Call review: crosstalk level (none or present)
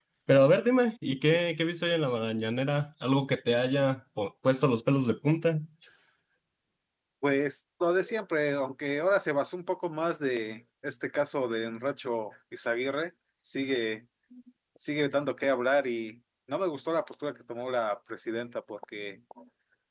none